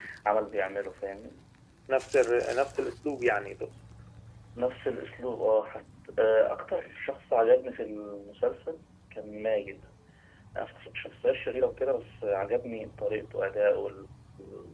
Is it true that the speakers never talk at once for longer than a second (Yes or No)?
Yes